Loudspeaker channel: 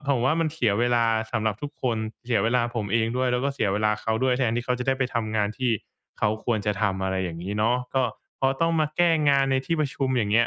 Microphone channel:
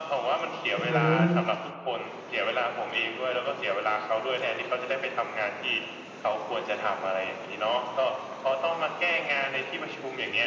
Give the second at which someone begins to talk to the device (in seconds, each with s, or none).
0.8 s